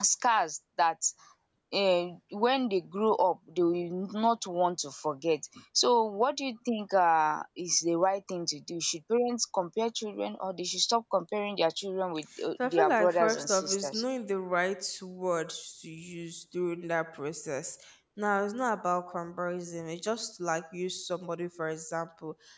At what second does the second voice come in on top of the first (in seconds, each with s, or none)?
12.6 s